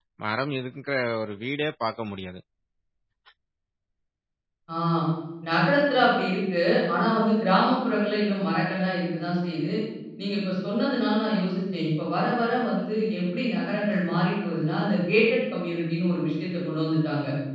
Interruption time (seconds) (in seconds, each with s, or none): none